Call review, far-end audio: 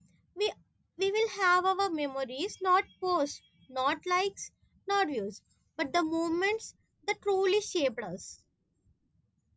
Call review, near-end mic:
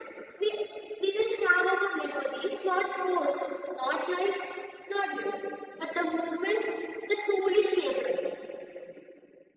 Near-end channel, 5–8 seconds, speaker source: echo only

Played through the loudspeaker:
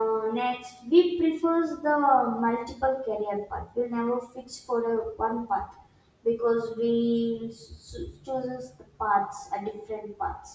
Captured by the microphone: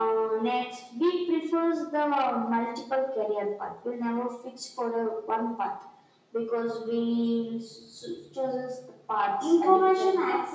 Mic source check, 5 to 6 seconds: echo only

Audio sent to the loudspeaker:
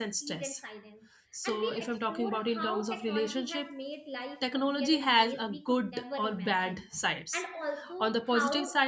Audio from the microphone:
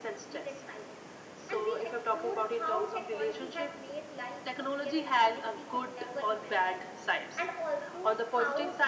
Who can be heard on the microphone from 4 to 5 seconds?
echo only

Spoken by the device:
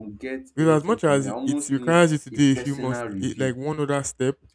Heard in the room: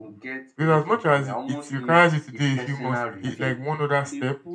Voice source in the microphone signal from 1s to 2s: echo only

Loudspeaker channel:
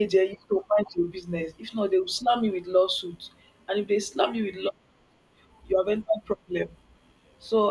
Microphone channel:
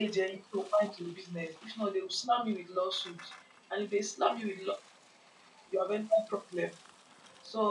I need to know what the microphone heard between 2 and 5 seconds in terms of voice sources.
echo only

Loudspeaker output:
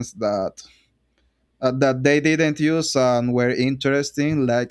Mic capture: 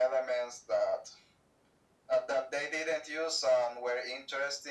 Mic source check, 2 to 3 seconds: echo only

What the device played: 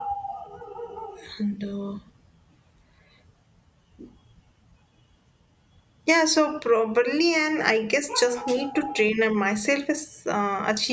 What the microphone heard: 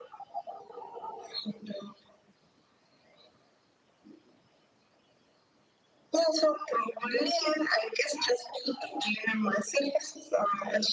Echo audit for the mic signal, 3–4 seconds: neither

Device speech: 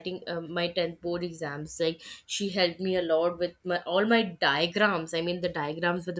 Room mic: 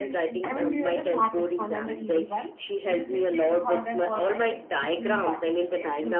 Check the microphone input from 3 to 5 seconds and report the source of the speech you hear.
both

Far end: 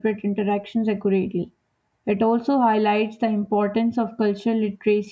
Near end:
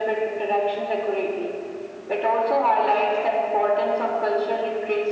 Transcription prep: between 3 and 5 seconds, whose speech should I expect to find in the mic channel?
echo only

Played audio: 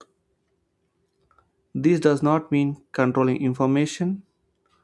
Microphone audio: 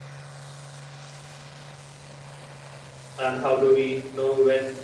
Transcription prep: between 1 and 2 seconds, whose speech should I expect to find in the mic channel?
neither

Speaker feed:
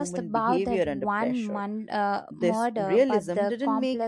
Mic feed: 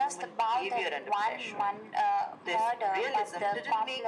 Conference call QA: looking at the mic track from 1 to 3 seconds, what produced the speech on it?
echo only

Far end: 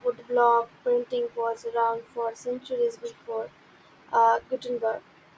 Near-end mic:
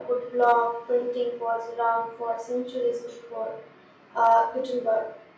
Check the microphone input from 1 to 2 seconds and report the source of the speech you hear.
echo only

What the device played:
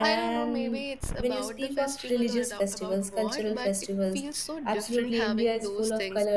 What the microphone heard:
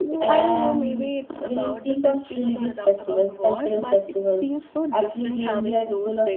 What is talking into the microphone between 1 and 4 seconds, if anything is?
echo only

